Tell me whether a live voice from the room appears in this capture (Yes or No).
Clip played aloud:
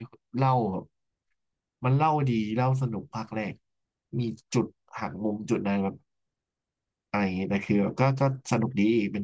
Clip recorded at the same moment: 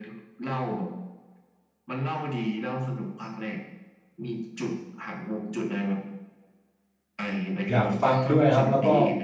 Yes